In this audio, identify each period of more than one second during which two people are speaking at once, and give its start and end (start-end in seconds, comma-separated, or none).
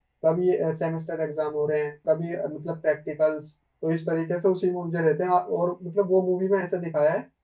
none